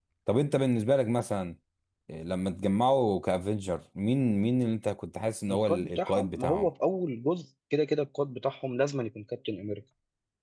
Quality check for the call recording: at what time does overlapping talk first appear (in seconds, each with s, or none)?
5.5 s